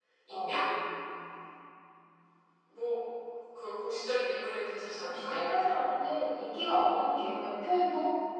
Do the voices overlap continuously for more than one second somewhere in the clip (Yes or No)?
No